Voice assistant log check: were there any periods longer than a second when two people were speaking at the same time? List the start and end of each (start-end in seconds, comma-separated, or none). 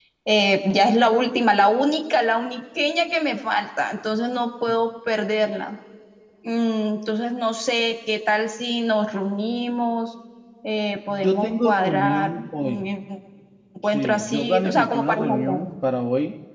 11.1-12.8, 13.8-15.7